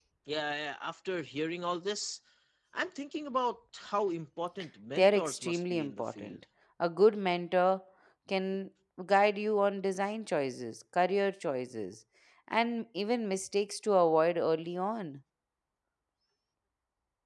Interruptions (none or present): present